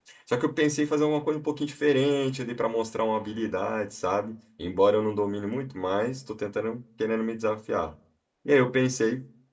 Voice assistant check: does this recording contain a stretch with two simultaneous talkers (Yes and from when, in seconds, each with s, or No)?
No